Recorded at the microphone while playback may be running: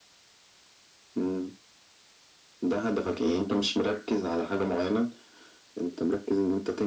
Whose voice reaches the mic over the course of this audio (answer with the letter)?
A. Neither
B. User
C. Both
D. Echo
D